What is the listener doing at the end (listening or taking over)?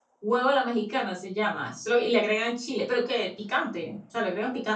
taking over